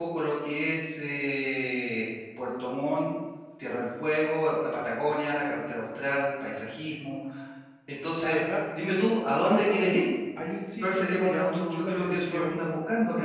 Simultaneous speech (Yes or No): Yes